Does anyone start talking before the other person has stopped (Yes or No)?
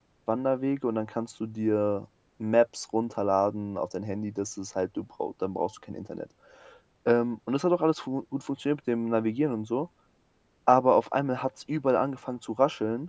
No